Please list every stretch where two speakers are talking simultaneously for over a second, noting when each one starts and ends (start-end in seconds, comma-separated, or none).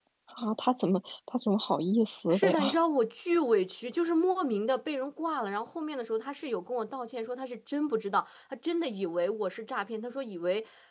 none